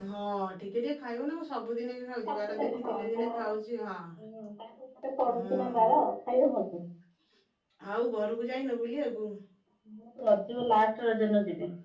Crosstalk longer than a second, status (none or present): present